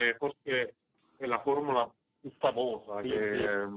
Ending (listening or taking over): taking over